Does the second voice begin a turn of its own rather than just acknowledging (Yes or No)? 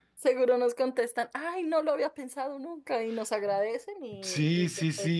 Yes